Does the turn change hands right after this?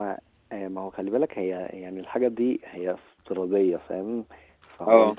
No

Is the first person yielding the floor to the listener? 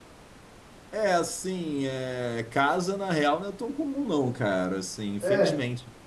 No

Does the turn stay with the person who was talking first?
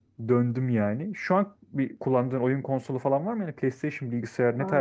No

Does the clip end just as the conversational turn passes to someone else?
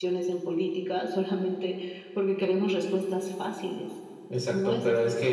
Yes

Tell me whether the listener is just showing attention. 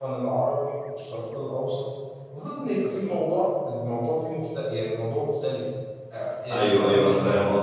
No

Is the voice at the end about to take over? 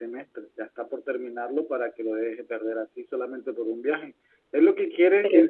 No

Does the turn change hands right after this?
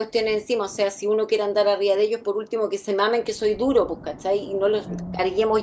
No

